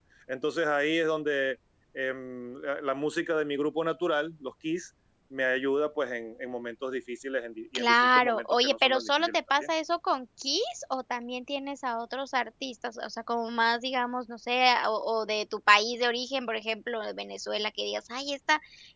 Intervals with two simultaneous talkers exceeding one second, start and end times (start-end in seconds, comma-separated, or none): 7.8-9.6